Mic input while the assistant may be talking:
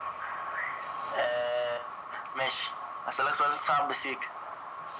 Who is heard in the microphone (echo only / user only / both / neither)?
echo only